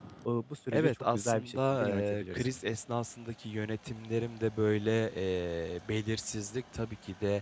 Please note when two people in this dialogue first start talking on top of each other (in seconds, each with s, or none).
0.7 s